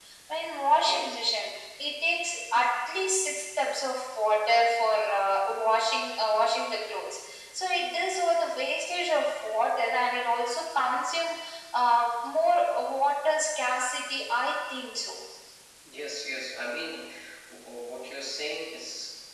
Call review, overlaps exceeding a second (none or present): none